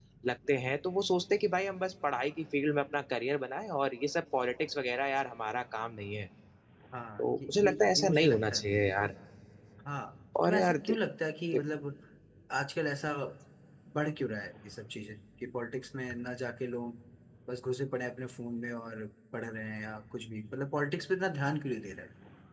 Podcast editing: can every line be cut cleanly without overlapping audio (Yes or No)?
No